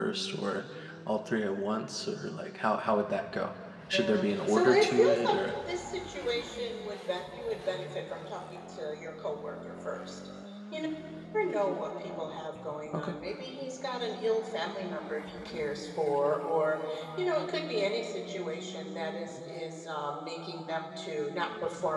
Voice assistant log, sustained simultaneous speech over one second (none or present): present